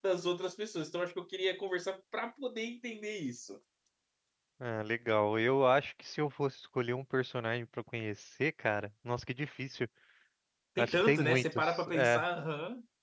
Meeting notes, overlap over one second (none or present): present